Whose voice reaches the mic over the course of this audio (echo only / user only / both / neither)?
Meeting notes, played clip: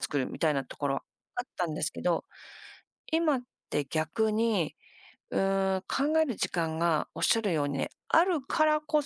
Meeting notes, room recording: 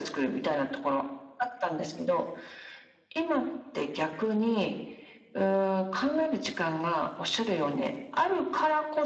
echo only